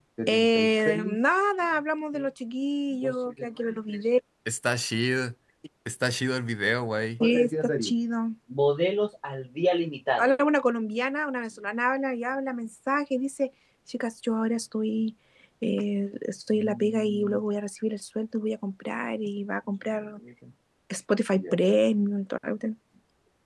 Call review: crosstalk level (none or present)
none